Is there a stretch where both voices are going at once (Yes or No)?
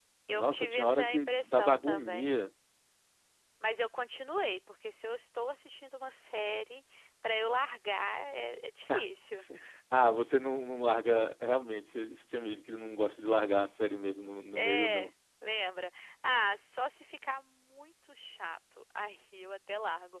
Yes